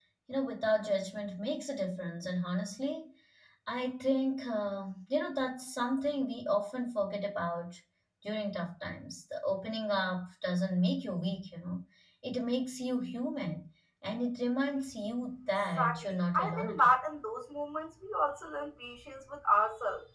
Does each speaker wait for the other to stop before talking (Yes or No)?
No